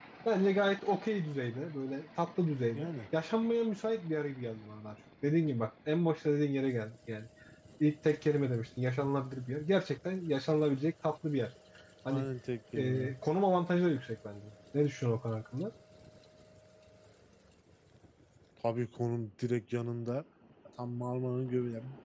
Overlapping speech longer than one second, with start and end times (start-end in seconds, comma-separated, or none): none